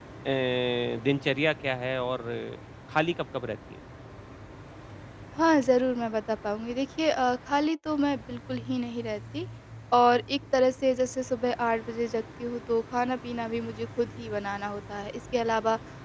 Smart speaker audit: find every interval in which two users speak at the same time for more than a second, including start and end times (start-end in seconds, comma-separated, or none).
none